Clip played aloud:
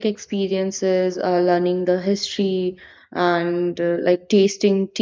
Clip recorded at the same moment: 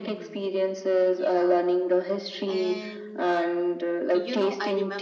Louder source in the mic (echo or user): echo